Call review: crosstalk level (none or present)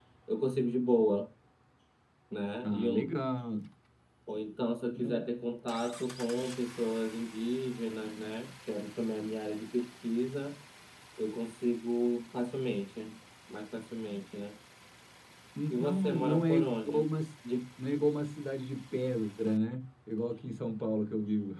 present